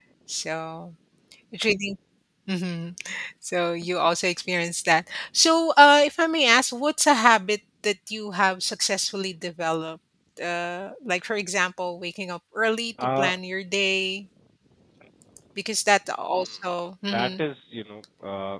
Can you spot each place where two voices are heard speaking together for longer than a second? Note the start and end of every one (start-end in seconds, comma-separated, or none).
none